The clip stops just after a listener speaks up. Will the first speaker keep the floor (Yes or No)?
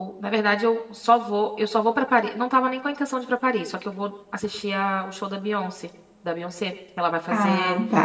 Yes